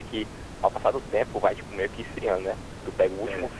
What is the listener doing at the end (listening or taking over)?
listening